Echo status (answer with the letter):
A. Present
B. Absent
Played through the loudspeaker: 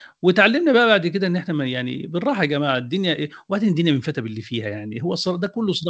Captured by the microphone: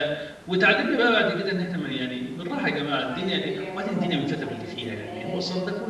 A